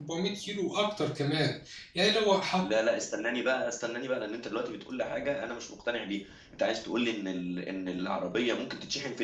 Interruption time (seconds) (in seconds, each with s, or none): none